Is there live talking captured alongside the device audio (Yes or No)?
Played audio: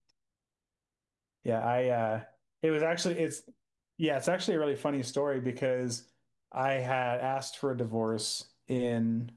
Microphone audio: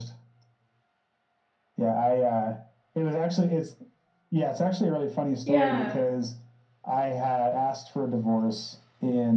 Yes